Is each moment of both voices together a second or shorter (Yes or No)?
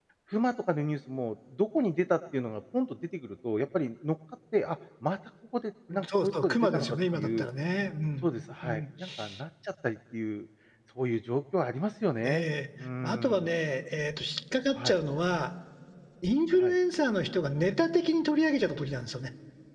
No